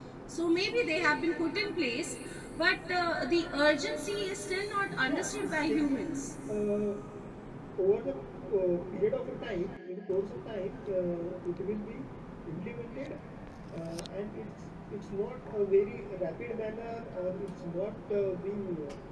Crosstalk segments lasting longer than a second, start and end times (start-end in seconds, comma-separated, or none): 4.9-6.2